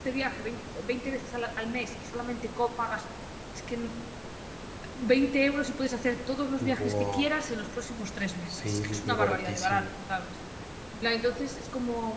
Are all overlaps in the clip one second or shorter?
No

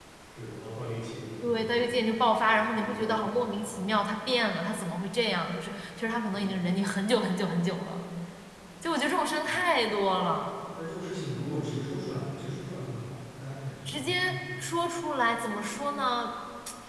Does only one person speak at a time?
No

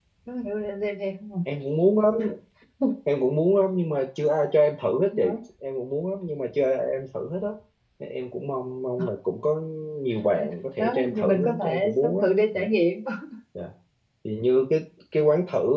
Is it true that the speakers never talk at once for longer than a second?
No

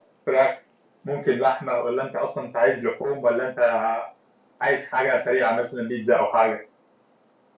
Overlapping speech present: No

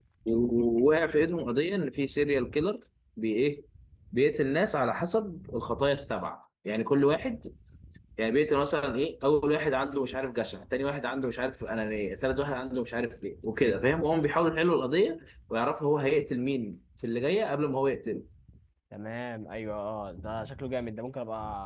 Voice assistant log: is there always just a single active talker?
Yes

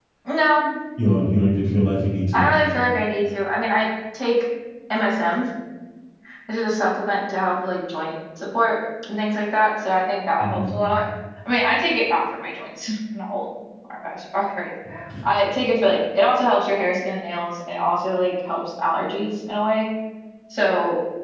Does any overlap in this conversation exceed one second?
No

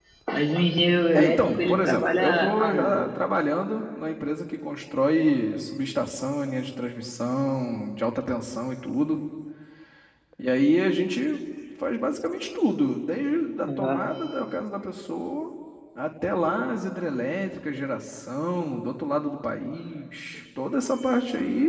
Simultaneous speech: Yes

